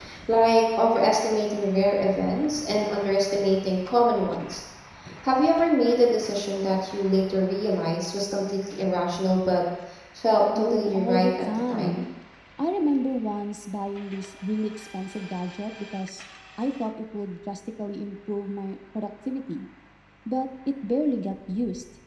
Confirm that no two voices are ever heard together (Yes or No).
No